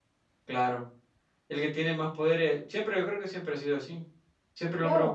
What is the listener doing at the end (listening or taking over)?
listening